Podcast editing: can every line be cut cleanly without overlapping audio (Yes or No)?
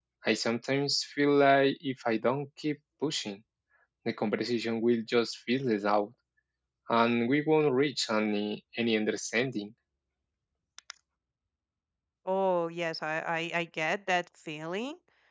Yes